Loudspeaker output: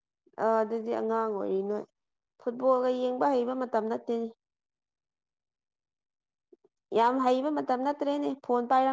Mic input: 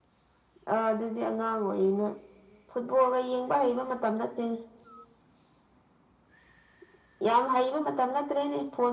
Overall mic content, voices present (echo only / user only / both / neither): echo only